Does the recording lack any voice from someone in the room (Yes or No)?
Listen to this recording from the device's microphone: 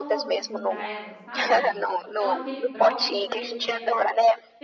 No